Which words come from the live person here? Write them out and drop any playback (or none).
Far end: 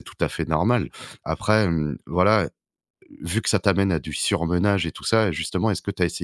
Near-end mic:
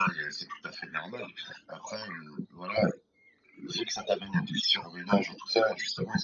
none